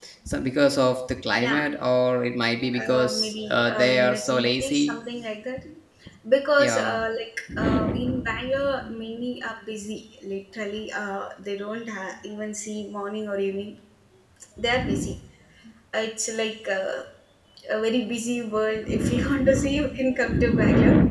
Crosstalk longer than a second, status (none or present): present